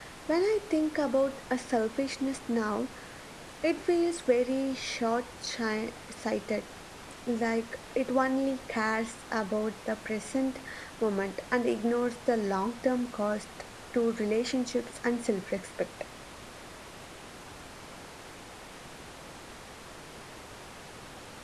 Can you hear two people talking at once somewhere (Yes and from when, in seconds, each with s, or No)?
No